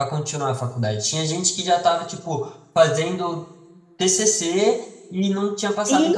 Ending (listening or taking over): listening